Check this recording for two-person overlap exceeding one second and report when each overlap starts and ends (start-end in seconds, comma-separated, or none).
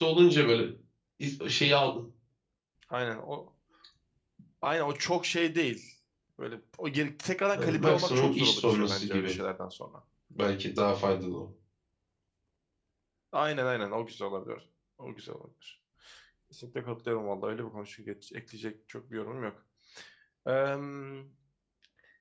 7.6-9.3